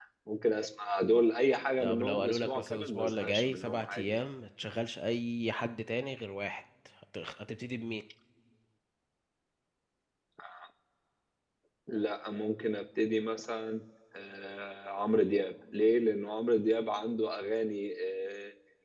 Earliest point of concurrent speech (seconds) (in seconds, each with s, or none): 1.8 s